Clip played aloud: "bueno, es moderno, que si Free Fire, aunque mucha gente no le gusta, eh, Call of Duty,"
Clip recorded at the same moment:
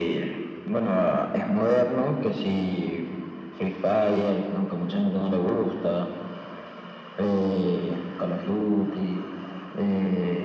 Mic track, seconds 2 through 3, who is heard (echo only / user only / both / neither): echo only